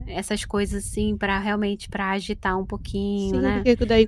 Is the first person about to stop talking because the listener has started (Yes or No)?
Yes